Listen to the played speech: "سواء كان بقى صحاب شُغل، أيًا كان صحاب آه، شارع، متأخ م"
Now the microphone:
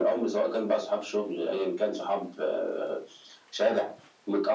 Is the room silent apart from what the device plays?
Yes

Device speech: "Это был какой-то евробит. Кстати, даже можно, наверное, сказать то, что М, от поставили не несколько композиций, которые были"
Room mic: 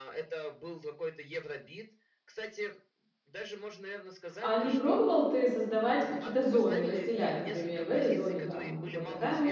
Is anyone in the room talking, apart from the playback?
Yes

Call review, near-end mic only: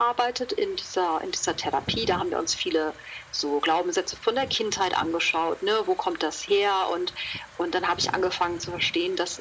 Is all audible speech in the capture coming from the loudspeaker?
Yes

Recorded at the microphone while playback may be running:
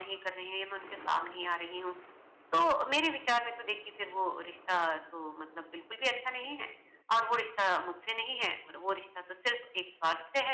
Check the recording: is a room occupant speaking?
No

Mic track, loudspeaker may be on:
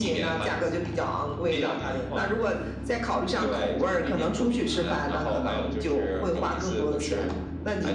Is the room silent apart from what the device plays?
Yes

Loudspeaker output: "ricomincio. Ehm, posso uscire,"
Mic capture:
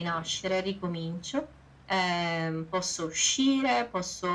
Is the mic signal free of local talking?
Yes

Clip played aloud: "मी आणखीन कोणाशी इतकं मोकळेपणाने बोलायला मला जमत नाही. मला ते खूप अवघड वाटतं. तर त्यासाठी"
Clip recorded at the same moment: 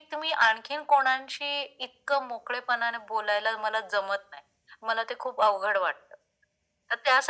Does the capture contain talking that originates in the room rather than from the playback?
No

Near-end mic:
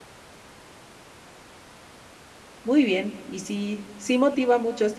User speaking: Yes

